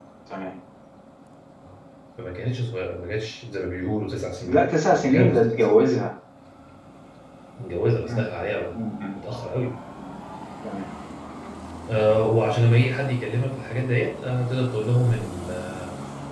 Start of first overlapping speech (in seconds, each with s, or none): 4.4 s